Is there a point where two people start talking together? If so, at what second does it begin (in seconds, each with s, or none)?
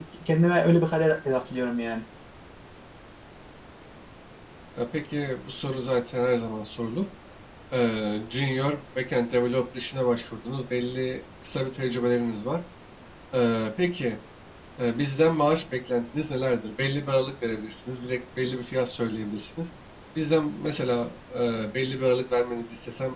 none